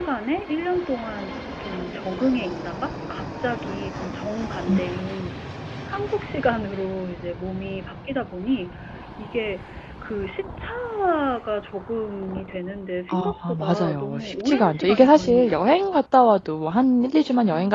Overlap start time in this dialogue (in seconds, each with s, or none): 13.1 s